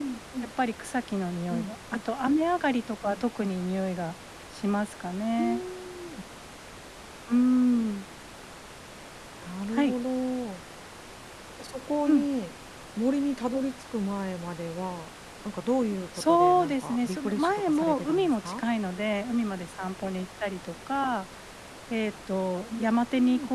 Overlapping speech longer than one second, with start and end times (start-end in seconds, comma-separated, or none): 16.2-18.6